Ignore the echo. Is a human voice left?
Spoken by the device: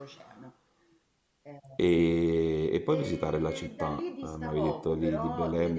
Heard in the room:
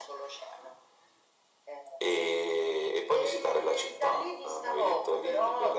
No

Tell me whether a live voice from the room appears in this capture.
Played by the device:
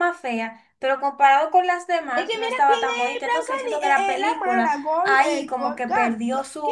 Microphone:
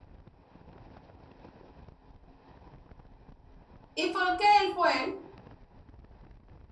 Yes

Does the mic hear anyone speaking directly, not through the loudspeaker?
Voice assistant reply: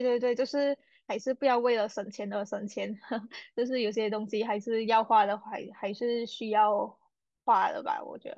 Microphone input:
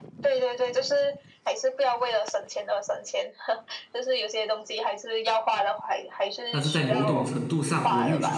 Yes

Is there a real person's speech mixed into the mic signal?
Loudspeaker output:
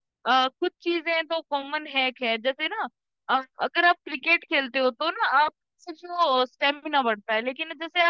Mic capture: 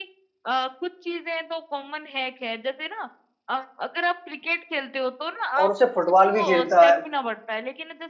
Yes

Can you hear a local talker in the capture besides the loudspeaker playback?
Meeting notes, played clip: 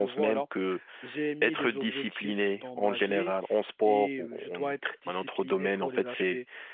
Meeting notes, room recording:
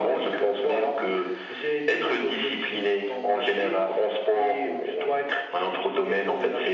No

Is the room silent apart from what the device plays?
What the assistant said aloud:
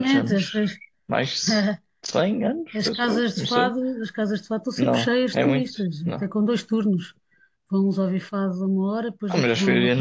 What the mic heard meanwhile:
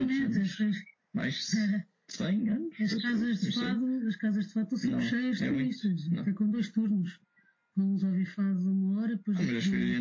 Yes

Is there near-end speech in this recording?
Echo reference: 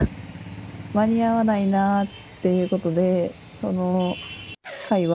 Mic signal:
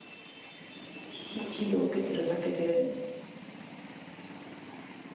Yes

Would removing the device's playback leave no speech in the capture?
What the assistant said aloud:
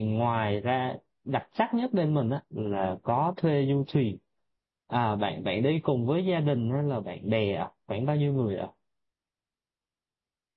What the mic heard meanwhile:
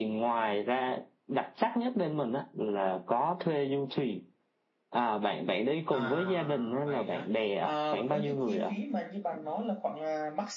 No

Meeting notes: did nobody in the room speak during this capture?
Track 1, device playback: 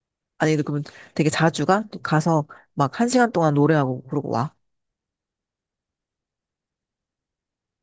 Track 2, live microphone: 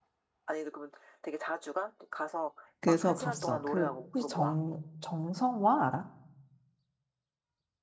No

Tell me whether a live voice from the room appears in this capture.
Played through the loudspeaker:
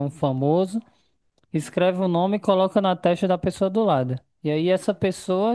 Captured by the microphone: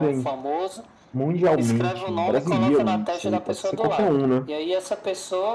Yes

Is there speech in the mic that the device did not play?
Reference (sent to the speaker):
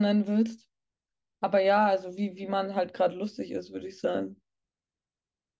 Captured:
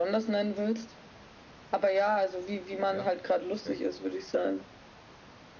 Yes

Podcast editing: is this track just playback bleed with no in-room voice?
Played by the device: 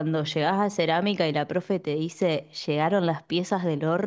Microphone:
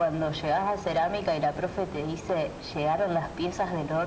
Yes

